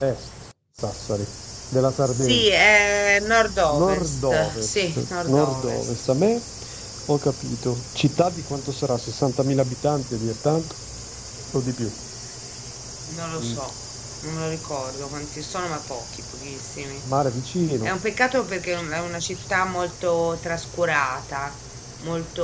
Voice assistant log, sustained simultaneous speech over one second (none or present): present